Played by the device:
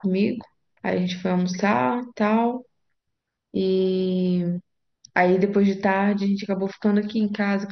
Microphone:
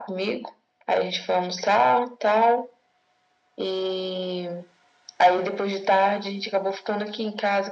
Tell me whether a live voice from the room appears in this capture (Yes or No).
No